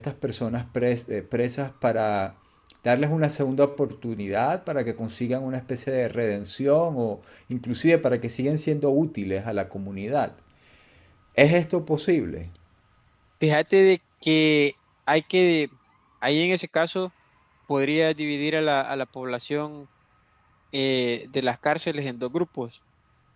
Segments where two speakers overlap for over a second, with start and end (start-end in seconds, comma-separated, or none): none